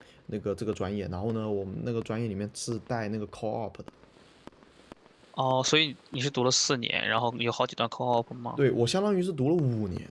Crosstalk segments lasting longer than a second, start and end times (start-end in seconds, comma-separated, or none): none